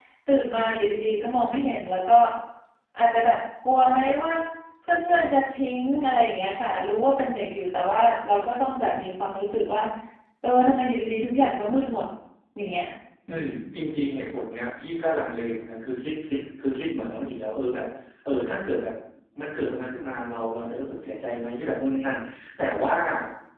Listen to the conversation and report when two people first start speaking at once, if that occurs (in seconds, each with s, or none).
none